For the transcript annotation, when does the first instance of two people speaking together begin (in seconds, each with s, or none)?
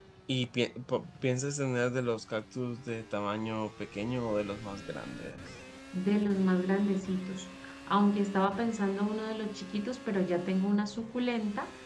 none